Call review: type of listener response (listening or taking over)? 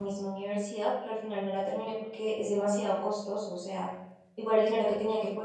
listening